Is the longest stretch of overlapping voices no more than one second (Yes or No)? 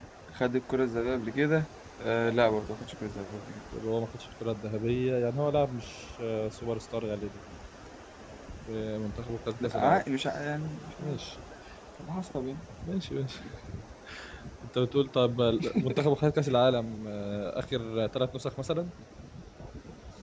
Yes